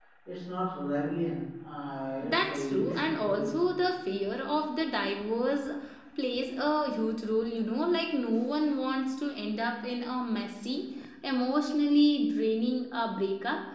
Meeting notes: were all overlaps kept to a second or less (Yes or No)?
No